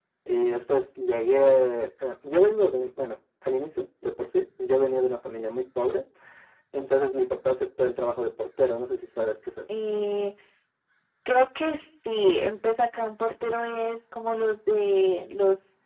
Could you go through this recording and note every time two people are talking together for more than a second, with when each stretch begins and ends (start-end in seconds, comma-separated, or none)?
none